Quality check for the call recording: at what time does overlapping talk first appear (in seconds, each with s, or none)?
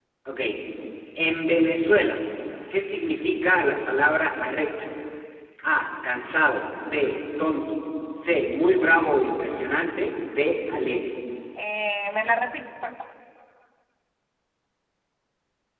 none